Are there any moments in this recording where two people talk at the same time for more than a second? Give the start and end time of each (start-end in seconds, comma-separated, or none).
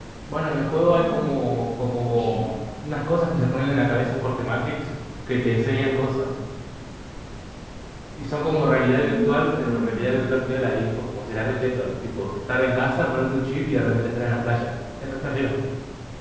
8.9-10.2